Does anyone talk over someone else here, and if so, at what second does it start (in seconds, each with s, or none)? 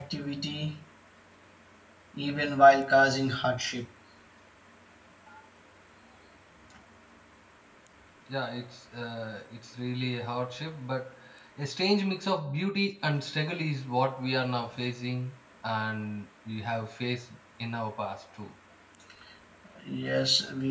none